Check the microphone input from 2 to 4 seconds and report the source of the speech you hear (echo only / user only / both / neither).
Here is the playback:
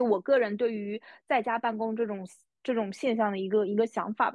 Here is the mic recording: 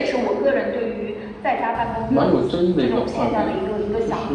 both